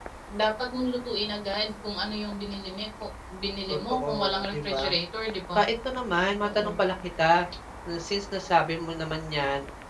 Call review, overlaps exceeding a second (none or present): present